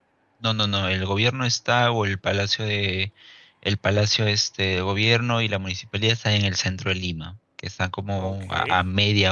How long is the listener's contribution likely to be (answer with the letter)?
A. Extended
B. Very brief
B